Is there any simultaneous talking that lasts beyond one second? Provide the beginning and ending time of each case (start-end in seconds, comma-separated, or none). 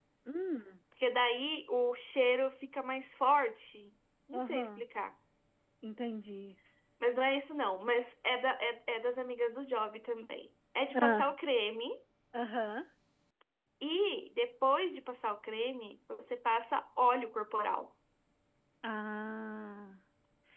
none